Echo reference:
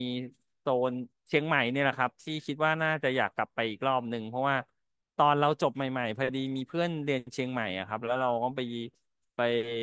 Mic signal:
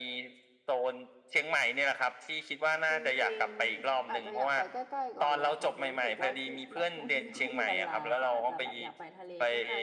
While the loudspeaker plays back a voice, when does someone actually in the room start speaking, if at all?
2.9 s

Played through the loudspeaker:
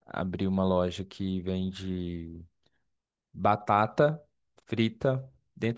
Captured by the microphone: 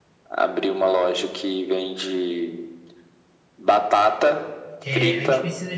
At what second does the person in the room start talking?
4.8 s

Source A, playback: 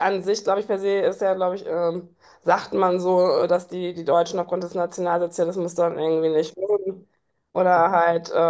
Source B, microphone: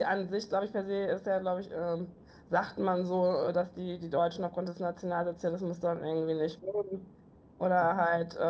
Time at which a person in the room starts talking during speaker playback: none

